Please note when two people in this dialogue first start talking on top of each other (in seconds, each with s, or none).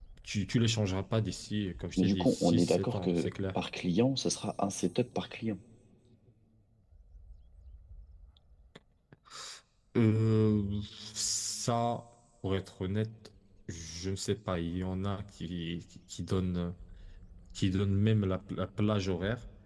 2.0 s